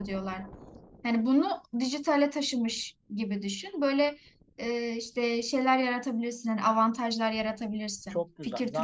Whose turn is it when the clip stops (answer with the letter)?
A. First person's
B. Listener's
B